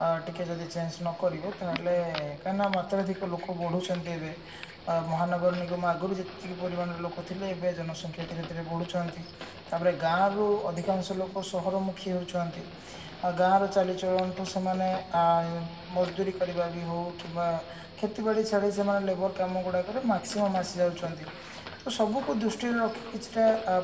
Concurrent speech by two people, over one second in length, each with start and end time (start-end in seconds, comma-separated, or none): none